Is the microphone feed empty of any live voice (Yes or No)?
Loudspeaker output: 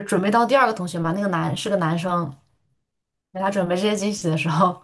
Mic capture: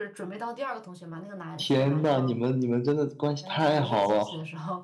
No